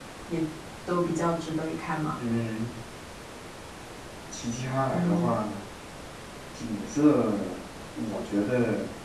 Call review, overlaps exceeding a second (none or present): none